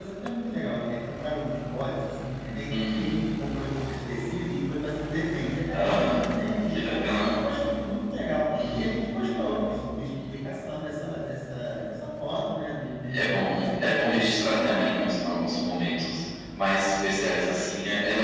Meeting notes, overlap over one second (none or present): present